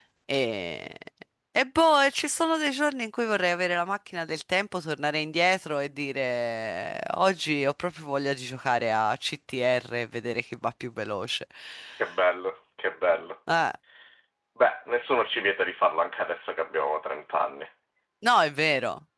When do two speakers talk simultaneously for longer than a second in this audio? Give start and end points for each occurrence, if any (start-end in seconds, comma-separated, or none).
none